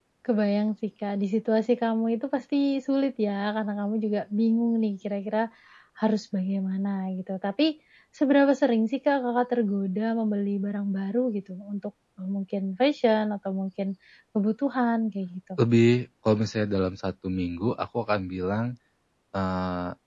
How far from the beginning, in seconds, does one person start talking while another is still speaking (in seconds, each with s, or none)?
none